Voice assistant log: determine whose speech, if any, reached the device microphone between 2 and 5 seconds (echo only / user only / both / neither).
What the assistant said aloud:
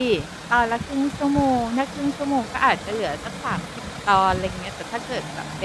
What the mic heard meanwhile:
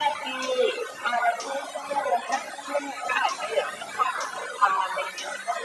echo only